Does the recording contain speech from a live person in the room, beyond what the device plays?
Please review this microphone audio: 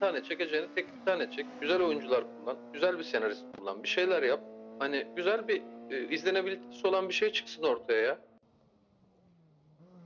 No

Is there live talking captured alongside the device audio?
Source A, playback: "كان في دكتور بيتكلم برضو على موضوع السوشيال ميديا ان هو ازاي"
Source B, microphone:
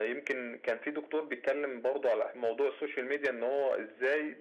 No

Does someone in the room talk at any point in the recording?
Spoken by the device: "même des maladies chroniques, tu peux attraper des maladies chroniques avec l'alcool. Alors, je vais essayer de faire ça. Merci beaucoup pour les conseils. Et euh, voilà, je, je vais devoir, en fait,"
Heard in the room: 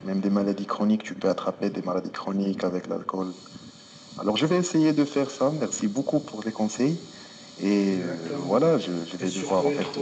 Yes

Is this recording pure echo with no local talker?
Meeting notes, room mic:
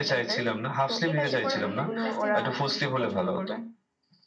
No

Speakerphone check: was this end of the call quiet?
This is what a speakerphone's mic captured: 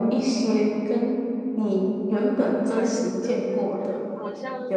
No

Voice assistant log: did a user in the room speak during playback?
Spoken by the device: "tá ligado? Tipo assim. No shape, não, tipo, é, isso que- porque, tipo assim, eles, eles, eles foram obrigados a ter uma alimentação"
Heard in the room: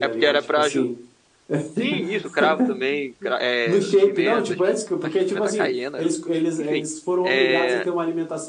Yes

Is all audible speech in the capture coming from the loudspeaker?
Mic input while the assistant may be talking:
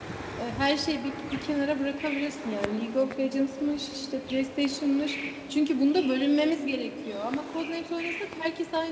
No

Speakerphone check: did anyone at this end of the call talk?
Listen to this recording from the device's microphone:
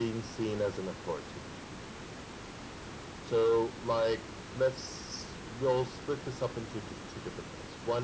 No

